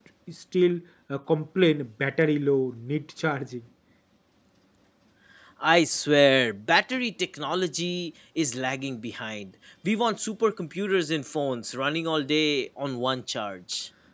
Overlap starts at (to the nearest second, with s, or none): none